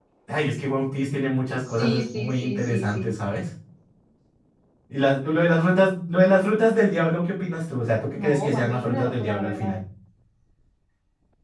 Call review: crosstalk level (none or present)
present